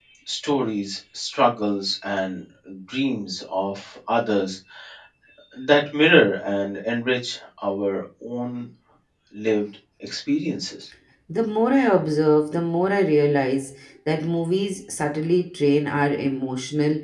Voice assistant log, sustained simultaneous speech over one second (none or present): none